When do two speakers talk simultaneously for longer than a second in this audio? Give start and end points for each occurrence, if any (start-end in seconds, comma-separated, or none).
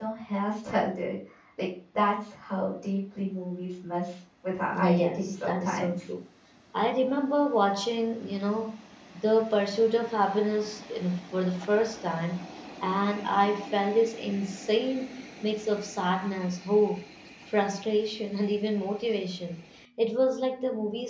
4.7-6.0